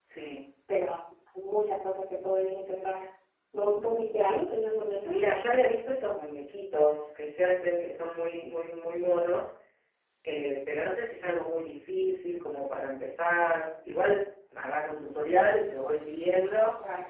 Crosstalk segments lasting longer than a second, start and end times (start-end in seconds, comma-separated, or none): none